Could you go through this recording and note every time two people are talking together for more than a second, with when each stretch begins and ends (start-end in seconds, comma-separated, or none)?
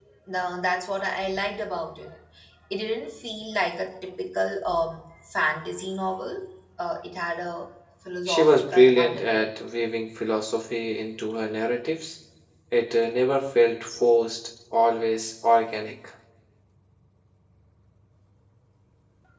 8.3-9.5